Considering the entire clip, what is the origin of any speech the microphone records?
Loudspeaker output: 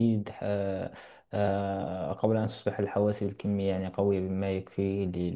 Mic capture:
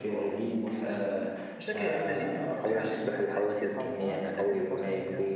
both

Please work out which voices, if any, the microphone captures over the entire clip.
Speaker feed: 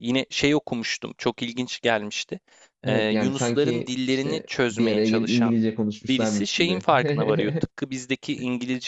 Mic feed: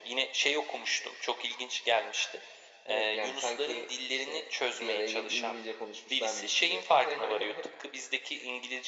echo only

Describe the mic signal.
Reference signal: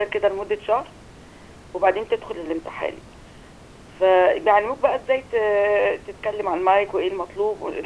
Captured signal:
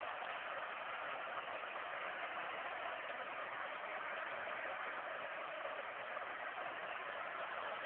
neither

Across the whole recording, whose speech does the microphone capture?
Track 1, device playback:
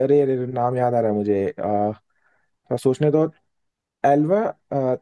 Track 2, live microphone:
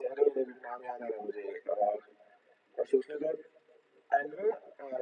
echo only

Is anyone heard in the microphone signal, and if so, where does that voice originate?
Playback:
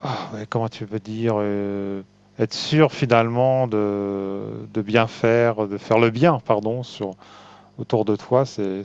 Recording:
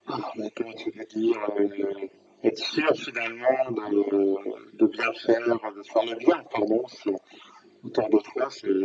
echo only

